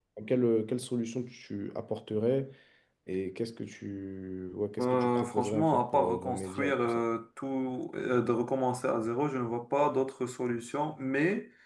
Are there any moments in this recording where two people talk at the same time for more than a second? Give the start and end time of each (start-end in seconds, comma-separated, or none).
4.8-6.9